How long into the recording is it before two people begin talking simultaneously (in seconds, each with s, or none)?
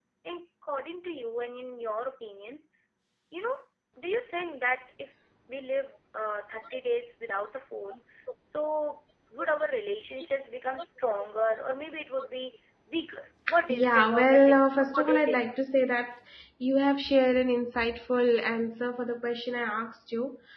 13.5 s